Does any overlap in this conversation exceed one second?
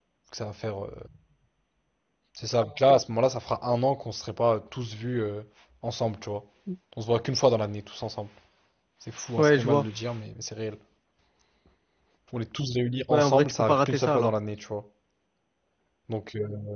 Yes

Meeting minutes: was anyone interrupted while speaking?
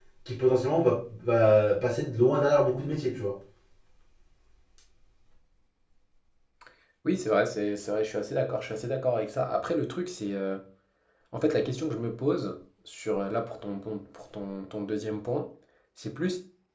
No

